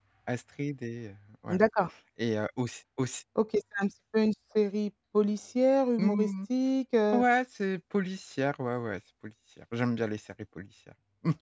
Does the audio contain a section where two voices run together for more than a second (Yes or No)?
No